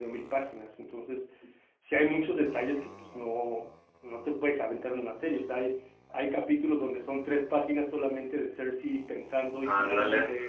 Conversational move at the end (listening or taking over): listening